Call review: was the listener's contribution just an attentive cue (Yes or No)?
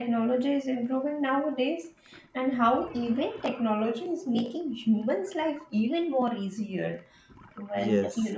Yes